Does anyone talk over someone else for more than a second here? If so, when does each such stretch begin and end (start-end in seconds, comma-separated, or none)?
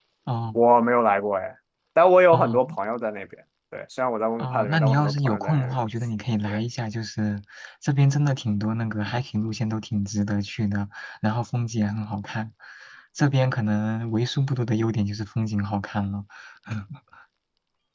4.4-5.7